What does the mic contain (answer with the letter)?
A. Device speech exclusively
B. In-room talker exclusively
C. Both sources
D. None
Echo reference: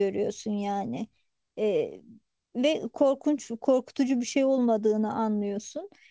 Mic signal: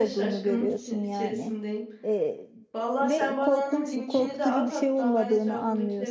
C